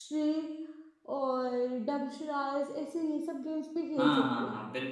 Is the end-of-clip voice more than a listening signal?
Yes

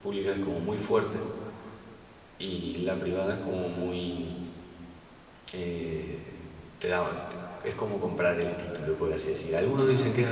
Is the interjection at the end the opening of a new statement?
No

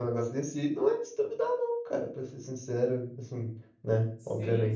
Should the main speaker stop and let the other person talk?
Yes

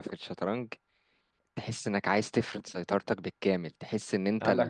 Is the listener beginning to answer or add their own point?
No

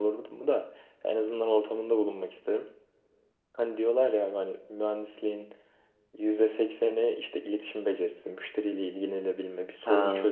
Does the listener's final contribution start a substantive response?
No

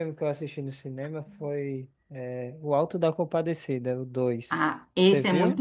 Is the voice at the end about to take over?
Yes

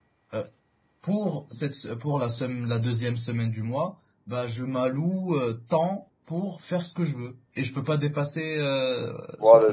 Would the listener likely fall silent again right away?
No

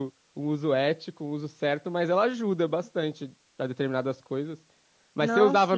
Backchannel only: Yes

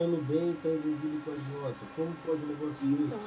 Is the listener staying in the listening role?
No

